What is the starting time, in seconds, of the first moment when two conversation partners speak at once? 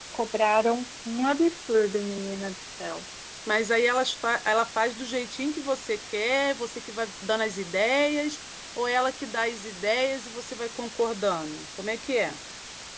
none

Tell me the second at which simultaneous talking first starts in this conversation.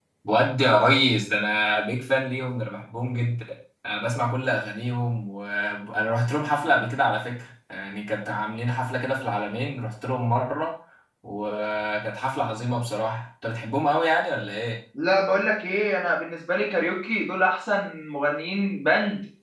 none

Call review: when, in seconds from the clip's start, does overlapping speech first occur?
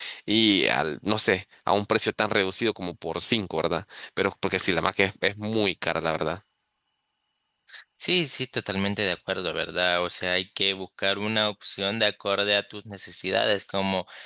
none

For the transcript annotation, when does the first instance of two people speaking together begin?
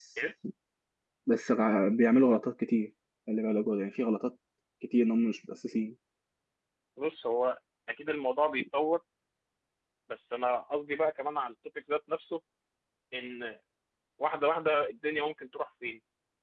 none

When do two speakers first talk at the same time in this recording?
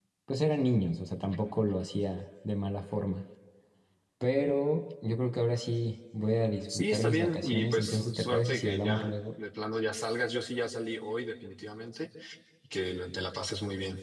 6.7 s

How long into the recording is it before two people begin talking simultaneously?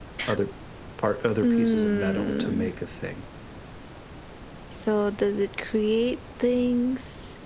1.4 s

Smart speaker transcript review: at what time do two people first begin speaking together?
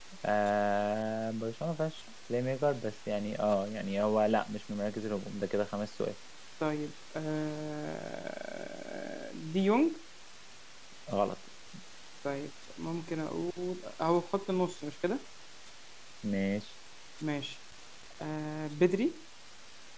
none

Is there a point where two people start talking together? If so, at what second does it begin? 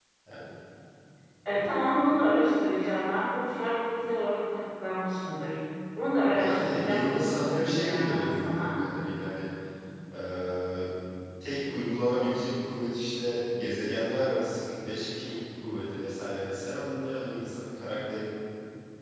6.2 s

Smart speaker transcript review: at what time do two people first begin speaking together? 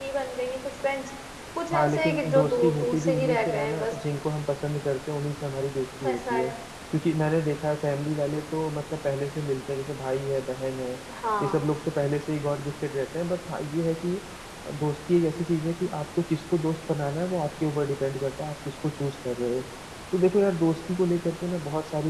1.7 s

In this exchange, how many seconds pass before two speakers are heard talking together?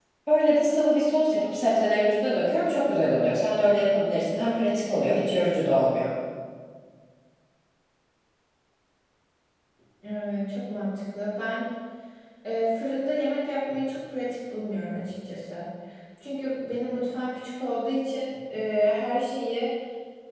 none

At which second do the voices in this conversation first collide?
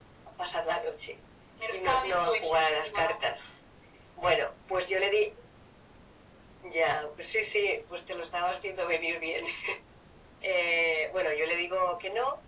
1.7 s

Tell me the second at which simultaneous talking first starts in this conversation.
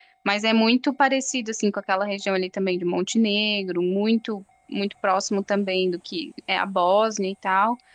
none

